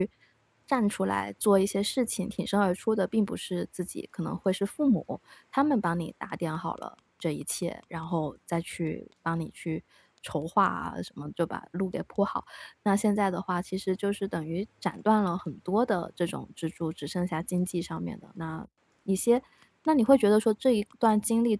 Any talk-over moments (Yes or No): No